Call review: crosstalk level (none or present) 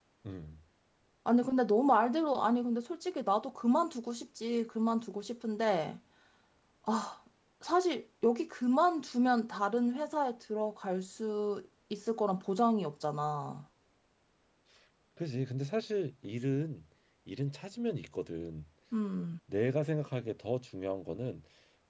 none